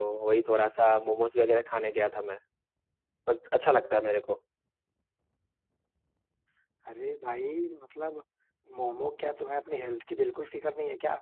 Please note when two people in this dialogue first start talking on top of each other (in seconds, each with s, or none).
none